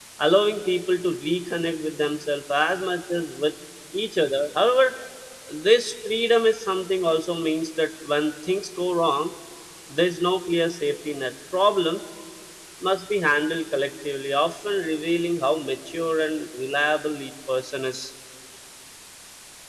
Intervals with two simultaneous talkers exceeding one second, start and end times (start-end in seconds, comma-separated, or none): none